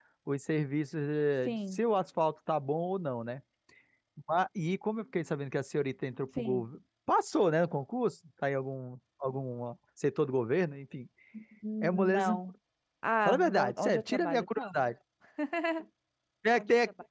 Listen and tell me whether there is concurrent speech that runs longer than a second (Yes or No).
Yes